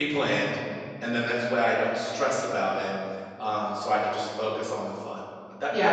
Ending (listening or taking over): taking over